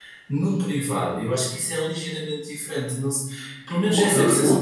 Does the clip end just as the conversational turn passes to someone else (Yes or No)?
Yes